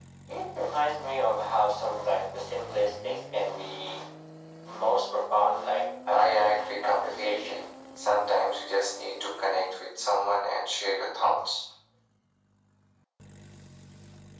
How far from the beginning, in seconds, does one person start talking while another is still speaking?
6 s

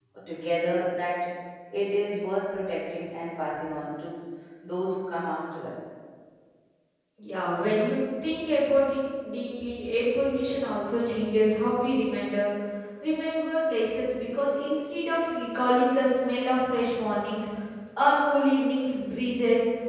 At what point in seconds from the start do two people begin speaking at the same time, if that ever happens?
none

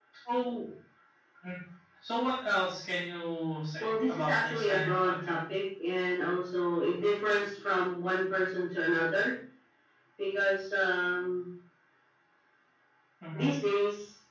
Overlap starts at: 4 s

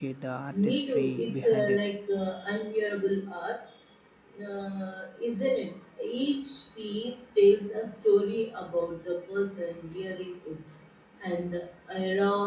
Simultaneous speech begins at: 1 s

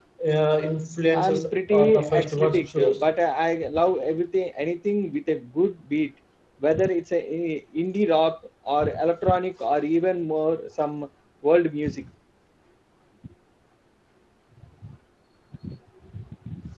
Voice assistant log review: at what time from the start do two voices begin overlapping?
1 s

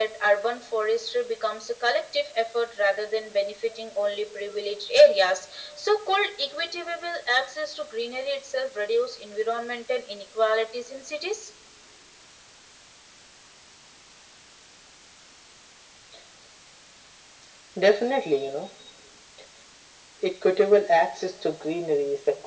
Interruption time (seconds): none

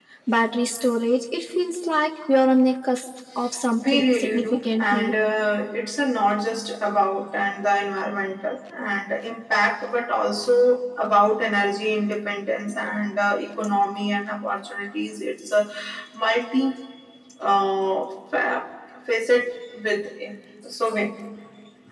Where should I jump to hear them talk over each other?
4 s

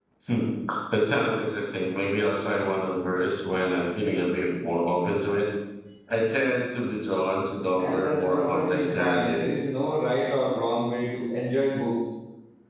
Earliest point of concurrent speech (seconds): 8 s

